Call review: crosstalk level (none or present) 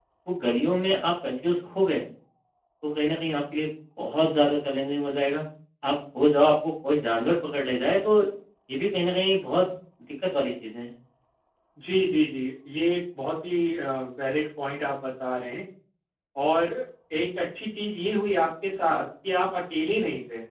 none